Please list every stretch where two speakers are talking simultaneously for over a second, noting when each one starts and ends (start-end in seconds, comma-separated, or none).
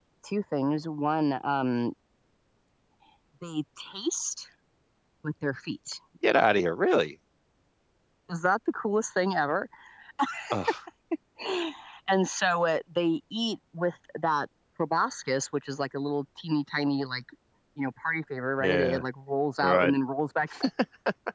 none